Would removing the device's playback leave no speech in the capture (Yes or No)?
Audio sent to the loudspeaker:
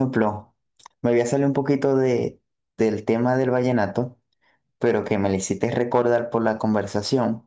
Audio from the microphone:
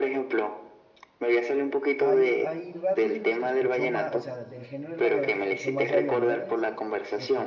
No